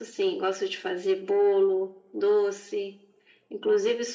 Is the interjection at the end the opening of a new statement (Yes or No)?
No